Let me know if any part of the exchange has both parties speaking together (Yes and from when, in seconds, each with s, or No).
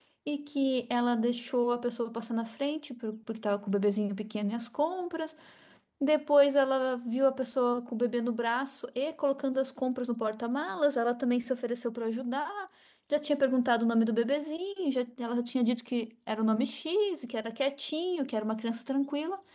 No